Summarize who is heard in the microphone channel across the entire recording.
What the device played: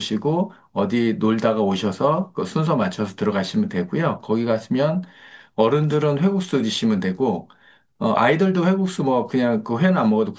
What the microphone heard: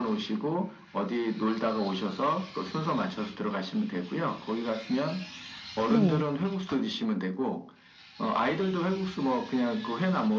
both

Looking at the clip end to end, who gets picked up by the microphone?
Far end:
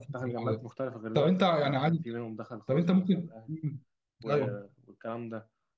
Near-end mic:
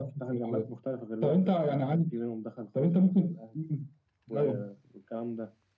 echo only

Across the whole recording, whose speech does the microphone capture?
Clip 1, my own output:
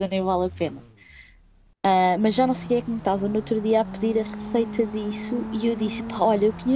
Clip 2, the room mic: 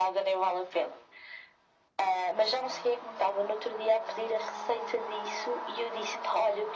echo only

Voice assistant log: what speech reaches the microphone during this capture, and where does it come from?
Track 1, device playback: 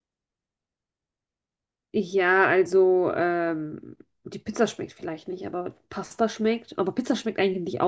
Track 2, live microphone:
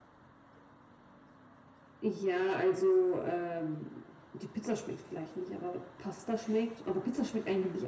echo only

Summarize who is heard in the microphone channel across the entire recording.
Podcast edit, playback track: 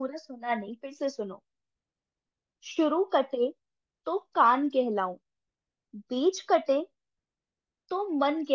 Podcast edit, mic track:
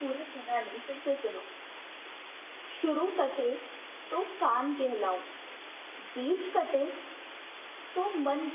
echo only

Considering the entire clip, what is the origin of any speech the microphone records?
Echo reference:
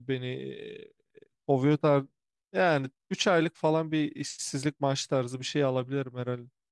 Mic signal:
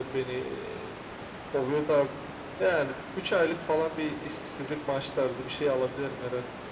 echo only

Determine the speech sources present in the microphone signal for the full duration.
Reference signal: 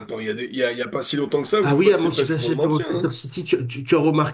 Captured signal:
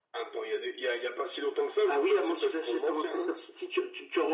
echo only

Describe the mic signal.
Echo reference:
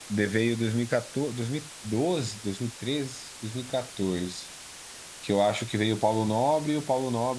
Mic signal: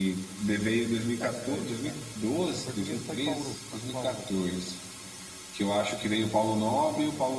both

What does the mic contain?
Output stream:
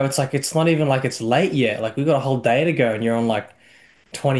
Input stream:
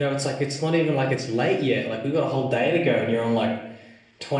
echo only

